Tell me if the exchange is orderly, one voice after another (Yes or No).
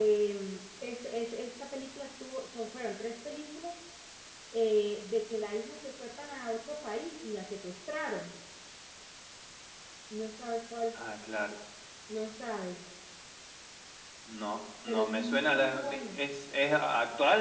No